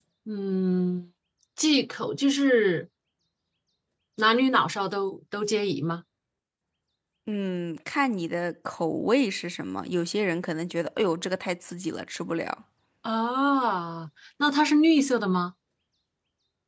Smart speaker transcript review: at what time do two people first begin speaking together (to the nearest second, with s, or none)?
none